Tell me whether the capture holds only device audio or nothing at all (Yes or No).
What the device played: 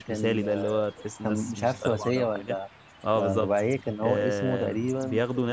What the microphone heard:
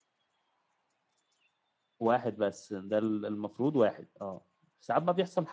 No